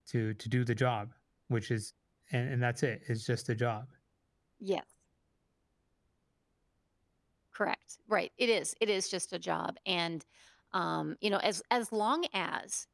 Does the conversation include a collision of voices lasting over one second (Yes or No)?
No